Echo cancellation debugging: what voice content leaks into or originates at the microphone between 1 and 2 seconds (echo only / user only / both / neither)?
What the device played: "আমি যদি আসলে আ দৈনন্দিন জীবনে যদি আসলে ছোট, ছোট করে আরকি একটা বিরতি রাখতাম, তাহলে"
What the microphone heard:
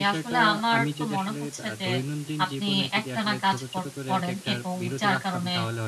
both